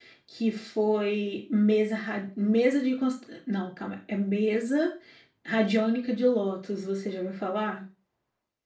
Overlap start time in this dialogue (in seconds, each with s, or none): none